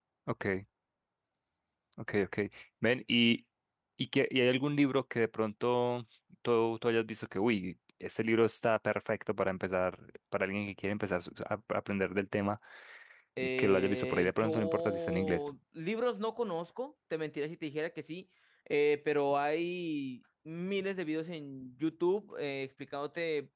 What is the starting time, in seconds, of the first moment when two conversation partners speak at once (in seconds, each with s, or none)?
13.6 s